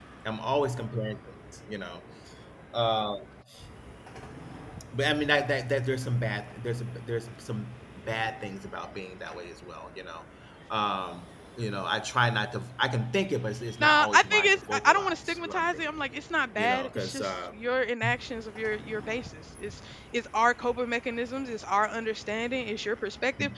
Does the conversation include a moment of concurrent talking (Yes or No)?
Yes